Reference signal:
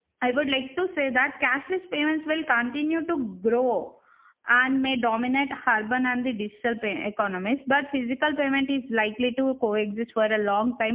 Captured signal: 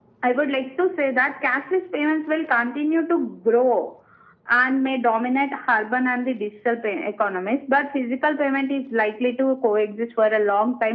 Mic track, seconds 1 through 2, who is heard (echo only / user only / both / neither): echo only